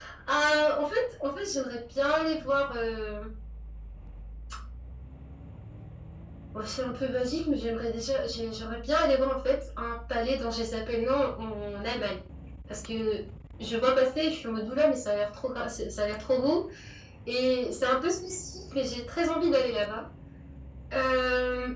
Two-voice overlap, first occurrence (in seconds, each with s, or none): none